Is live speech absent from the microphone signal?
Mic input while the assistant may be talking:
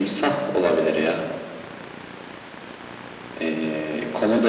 Yes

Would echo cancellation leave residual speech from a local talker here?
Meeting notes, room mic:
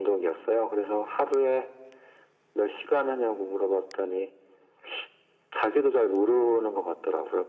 No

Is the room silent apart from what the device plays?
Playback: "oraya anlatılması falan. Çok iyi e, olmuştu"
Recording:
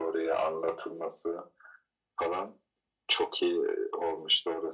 Yes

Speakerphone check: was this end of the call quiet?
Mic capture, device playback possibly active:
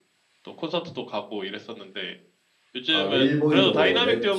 No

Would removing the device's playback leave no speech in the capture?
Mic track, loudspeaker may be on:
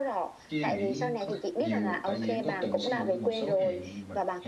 No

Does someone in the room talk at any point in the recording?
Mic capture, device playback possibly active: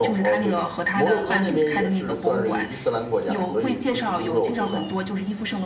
Yes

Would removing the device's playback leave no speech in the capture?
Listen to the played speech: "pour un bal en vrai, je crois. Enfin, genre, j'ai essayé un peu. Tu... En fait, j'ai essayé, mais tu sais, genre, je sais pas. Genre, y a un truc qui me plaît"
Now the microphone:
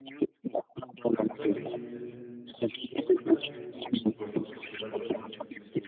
No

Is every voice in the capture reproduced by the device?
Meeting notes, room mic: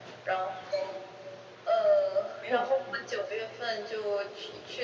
No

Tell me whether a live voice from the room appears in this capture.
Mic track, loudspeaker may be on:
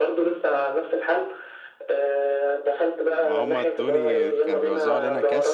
Yes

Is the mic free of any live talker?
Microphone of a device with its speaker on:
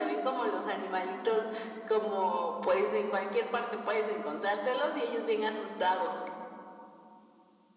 Yes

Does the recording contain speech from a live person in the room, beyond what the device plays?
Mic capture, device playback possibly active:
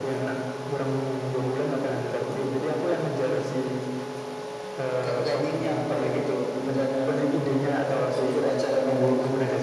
No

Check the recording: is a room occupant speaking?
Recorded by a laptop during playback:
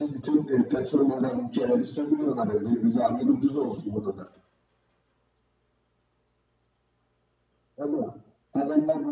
No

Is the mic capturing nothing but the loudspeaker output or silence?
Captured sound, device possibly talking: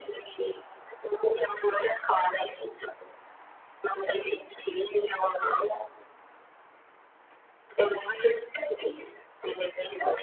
Yes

